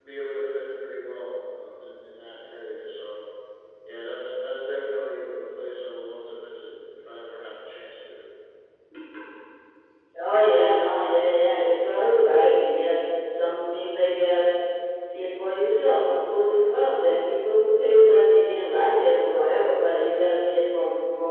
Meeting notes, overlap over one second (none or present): none